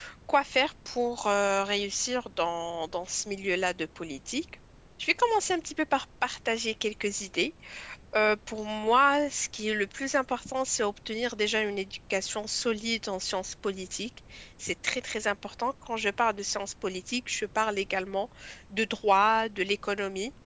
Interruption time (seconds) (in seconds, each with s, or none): none